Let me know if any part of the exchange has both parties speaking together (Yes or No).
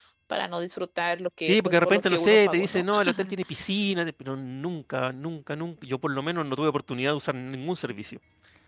Yes